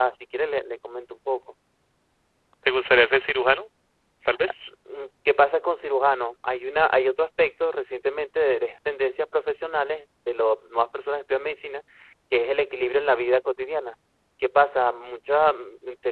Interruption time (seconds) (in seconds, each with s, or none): none